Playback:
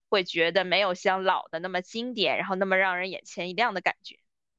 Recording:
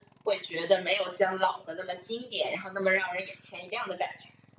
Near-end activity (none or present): none